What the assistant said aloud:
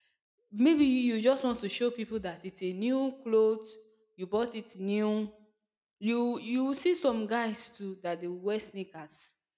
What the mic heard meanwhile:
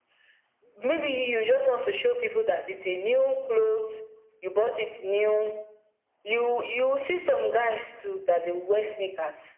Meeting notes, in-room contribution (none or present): none